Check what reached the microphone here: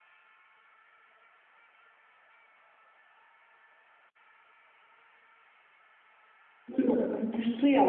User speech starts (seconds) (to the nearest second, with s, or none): 7 s